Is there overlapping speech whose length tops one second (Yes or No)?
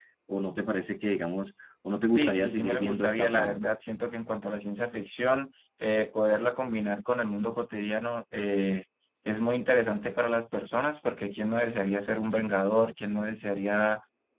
Yes